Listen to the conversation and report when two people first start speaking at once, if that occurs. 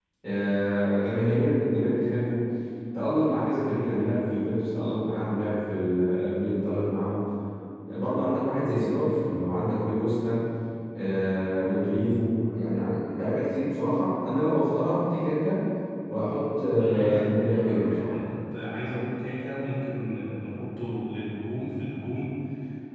16.7 s

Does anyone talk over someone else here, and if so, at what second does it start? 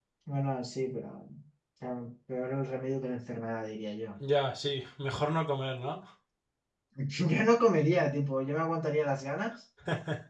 none

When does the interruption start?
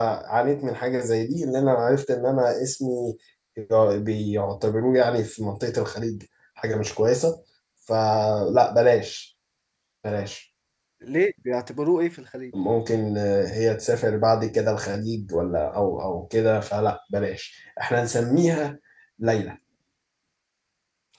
none

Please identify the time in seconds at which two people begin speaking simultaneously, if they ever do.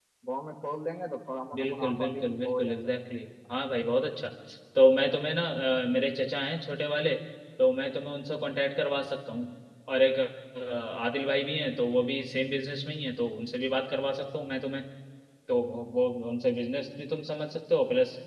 1.5 s

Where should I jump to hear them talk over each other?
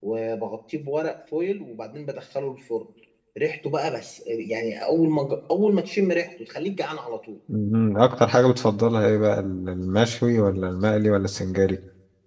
none

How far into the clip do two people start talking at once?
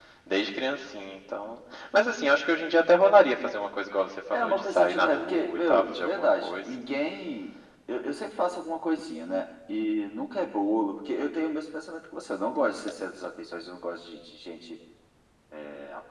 4.3 s

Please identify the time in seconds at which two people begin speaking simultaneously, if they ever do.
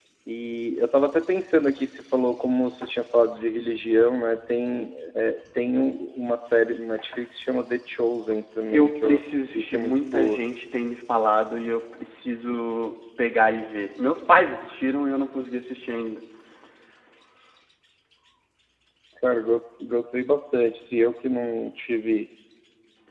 8.7 s

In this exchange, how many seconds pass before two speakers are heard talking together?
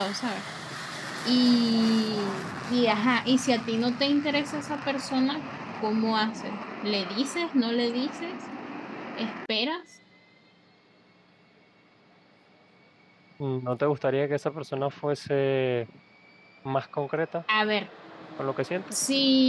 none

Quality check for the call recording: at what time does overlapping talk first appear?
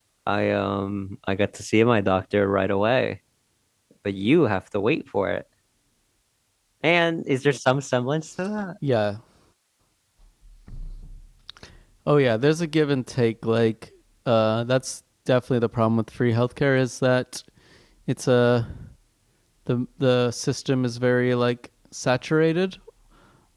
none

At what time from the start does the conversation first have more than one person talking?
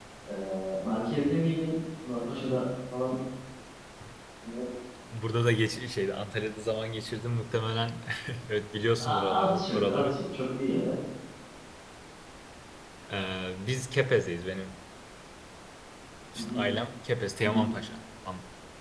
9.0 s

